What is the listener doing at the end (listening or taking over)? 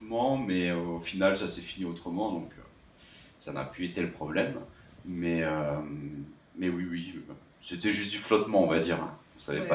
taking over